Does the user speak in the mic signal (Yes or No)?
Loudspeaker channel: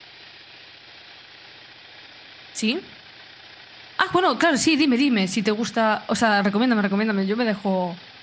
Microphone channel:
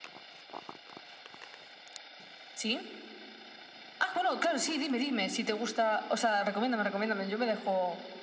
No